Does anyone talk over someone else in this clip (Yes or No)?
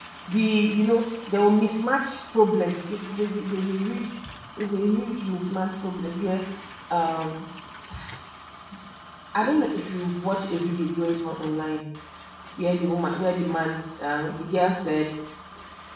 No